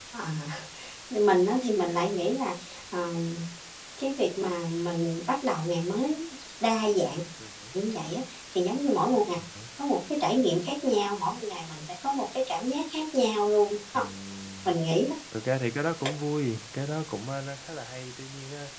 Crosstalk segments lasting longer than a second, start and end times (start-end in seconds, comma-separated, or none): none